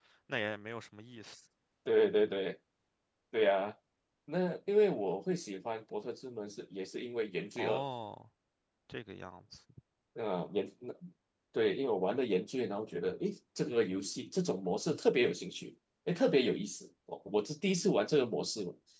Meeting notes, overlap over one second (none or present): none